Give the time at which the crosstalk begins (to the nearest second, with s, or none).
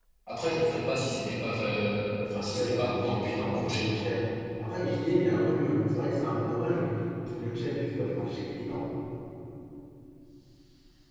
2 s